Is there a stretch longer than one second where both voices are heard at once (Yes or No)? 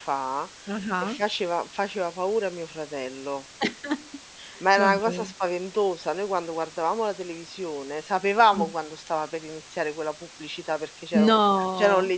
No